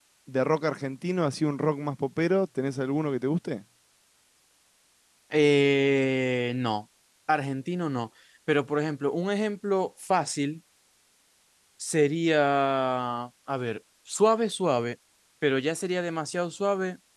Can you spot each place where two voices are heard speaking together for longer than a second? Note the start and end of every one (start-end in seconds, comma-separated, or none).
none